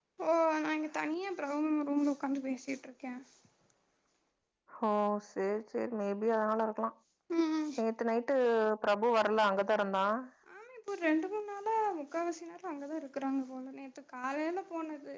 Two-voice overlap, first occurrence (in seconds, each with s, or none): none